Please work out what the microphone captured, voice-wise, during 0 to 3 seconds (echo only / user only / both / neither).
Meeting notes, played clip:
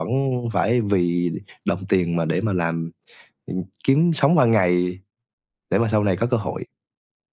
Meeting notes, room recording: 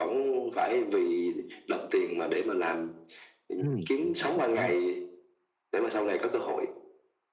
echo only